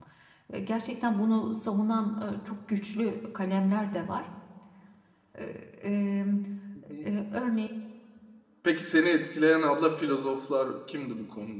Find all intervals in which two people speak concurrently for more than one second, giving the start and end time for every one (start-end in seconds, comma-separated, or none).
none